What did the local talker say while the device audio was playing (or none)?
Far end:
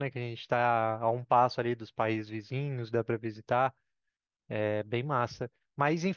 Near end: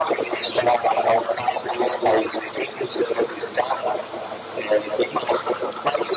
none